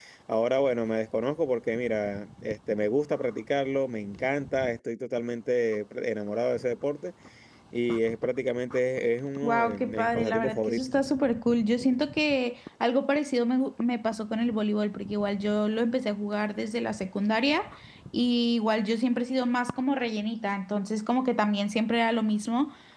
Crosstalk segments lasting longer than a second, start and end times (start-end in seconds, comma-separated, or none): 9.4-10.9